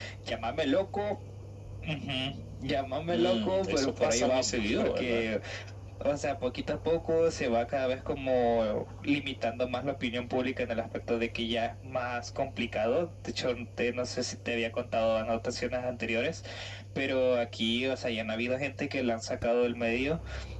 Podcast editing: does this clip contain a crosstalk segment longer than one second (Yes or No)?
Yes